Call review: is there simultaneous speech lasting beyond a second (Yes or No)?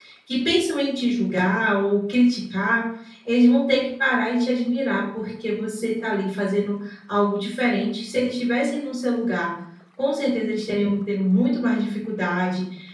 No